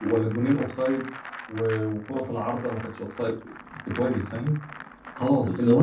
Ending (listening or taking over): listening